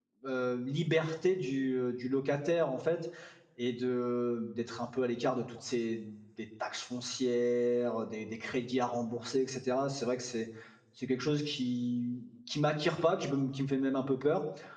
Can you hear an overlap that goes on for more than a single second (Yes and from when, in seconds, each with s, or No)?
No